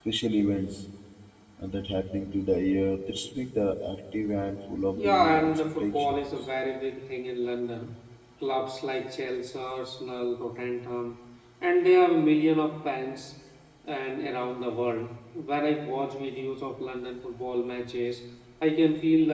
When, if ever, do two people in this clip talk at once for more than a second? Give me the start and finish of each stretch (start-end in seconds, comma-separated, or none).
5.0-6.2